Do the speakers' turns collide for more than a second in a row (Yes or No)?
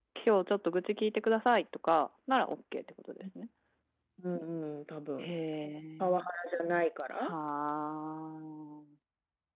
No